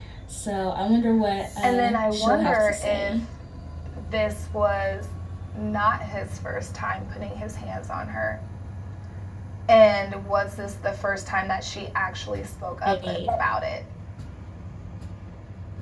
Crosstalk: present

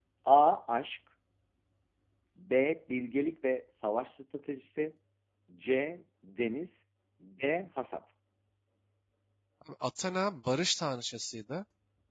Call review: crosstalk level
none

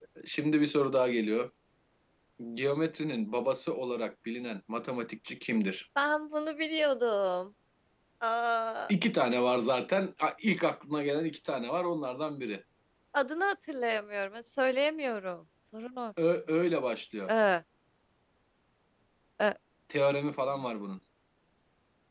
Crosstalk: none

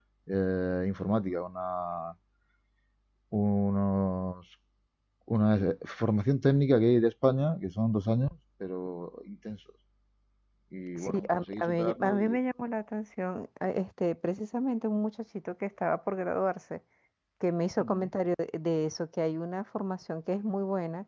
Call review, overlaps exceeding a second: present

